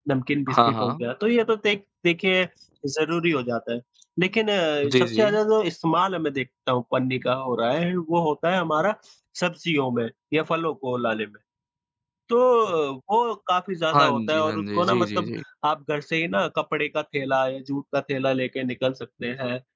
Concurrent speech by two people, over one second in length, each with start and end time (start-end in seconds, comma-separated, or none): 13.9-15.3